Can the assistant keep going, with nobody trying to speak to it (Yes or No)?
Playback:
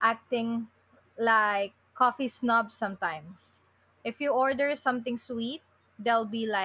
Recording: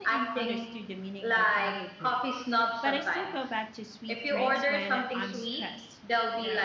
No